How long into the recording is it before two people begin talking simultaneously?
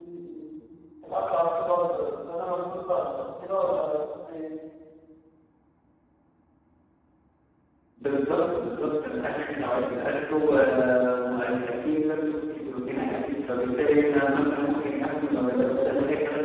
none

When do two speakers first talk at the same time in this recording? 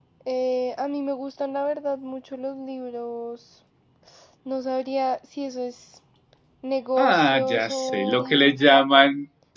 7.0 s

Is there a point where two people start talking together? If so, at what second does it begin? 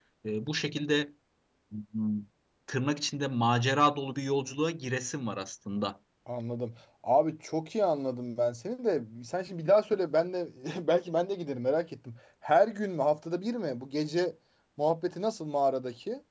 none

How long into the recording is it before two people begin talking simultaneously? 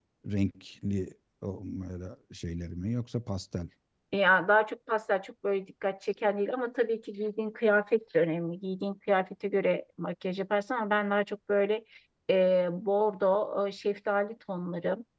none

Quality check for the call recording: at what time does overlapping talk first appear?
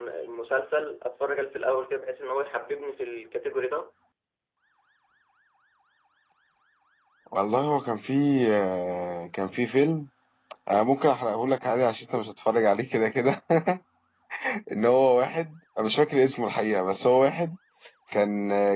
none

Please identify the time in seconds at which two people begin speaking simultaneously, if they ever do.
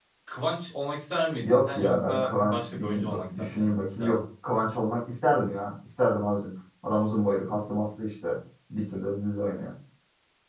1.4 s

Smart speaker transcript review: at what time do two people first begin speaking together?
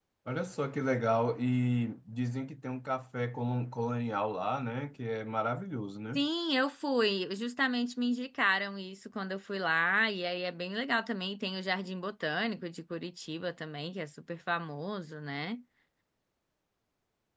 none

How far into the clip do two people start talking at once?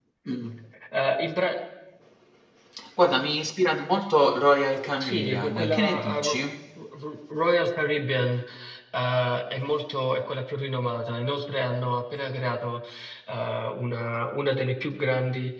5.0 s

